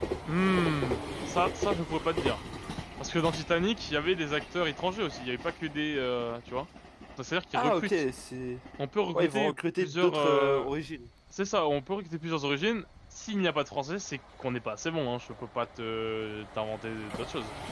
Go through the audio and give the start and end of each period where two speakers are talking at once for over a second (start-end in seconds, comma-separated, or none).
9.2-10.7